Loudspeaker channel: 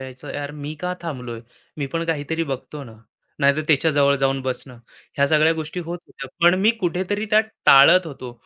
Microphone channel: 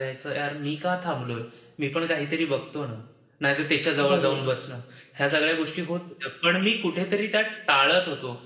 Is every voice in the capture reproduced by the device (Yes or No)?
No